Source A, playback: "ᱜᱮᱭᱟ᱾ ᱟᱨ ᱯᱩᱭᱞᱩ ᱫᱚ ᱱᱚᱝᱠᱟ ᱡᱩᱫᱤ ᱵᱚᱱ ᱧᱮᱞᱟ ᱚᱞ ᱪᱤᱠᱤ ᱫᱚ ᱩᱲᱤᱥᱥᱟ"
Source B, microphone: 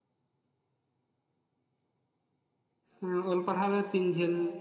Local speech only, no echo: ᱦᱮ ᱚᱞ ᱯᱟᱲᱦᱟᱣ ᱫᱚ ᱛᱤᱱ ᱡᱷᱟᱹᱞ?

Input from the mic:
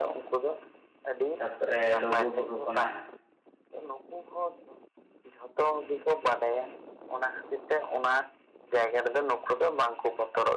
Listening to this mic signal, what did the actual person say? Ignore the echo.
ᱛᱟᱯᱚᱨᱮ ᱞᱩᱜᱩᱼᱵᱩᱨᱩ ᱠᱷᱚᱱᱟᱜ

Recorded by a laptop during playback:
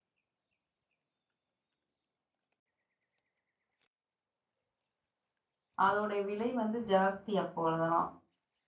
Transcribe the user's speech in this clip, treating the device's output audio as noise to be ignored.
அதோடைய விலை வந்து ஜாஸ்தி அப்பொழுதுலா

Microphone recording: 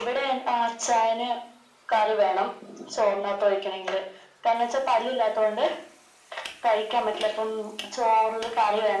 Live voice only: none

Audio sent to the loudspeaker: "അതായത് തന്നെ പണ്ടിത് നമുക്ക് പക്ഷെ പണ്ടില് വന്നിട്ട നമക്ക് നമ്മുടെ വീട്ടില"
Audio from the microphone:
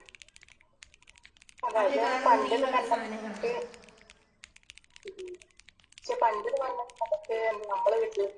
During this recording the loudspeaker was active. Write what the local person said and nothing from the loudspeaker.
അവര് കാണുന്നത് ഈ വക സാനങ്ങളാ.

